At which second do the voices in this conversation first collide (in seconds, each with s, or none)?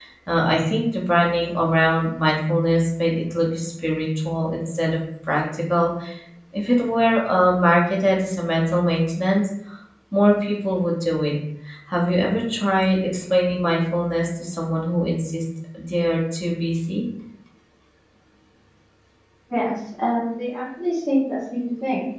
none